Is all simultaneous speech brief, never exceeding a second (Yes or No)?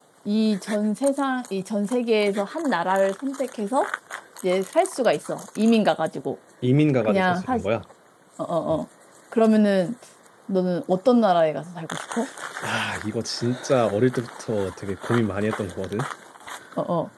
Yes